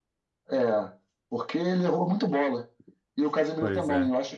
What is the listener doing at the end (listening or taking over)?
listening